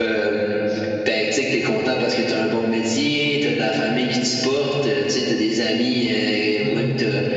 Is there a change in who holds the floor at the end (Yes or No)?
No